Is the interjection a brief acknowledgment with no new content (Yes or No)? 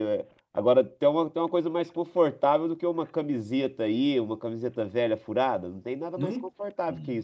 No